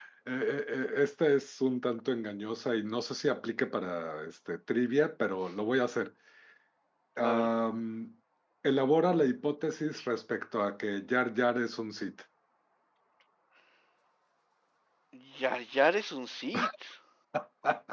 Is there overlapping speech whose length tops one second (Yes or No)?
No